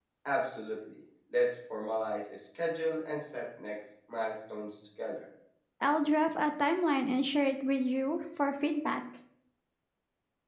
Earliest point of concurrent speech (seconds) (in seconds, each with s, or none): none